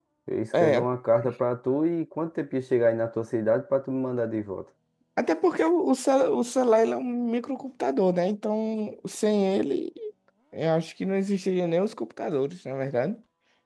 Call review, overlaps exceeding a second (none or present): none